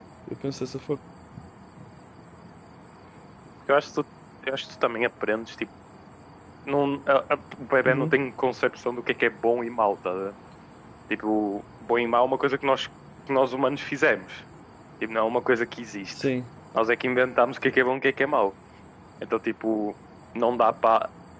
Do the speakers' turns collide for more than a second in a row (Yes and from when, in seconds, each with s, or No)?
No